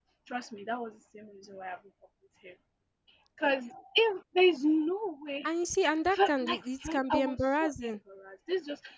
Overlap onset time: 6.1 s

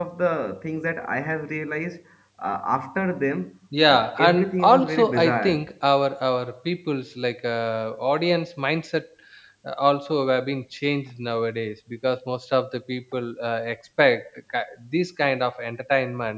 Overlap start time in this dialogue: 3.7 s

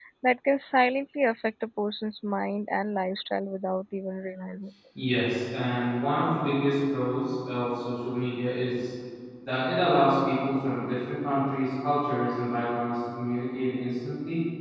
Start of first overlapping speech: none

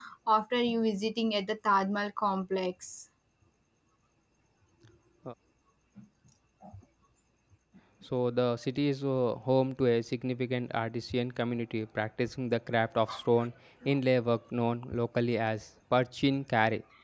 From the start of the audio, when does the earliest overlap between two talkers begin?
none

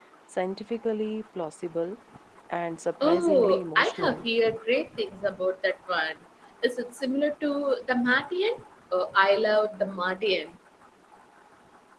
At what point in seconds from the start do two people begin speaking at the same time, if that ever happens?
3.0 s

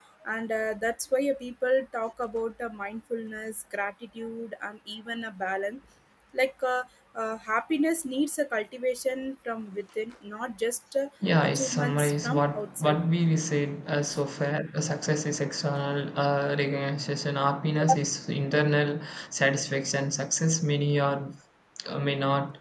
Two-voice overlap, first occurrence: 11.2 s

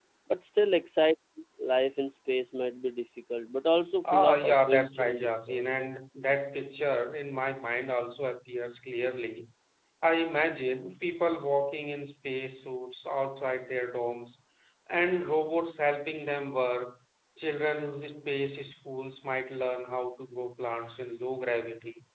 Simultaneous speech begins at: 4.0 s

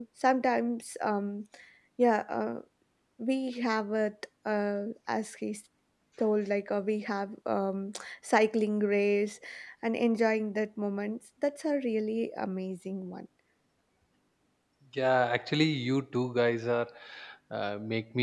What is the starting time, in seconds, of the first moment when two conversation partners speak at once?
none

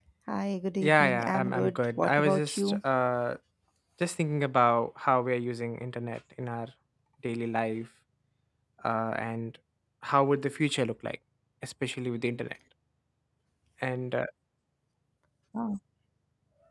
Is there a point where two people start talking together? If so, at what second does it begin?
0.8 s

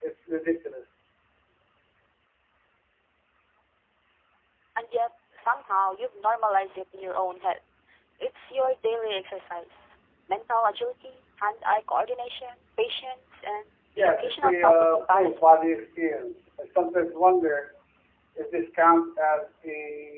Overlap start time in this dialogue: 14.0 s

